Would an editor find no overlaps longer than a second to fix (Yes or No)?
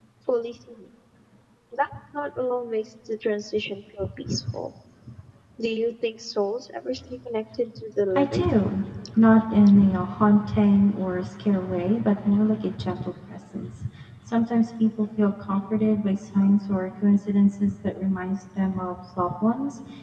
Yes